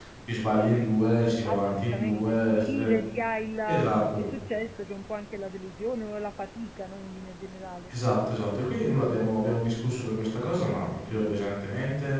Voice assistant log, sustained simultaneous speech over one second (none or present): present